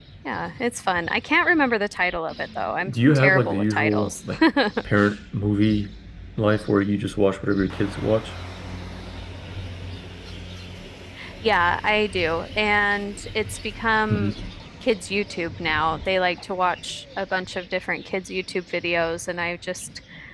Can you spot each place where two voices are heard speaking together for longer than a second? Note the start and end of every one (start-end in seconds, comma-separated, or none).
2.9-4.1